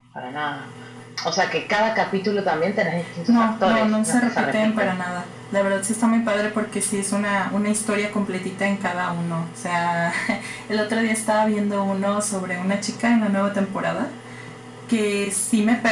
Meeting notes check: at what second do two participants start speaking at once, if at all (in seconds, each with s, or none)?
3.3 s